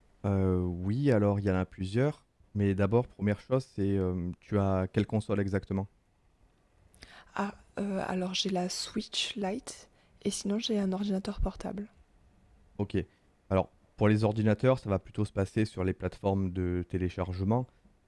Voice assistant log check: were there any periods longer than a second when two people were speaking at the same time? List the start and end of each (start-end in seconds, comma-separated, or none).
none